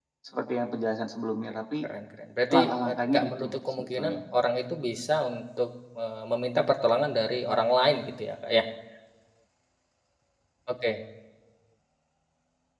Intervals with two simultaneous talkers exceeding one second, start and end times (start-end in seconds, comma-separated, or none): 2.5-4.2